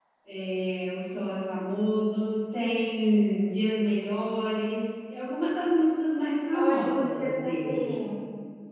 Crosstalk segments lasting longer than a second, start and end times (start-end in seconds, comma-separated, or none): 6.5-8.0